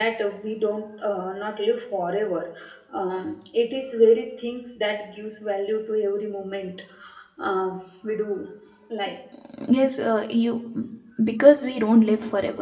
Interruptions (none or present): none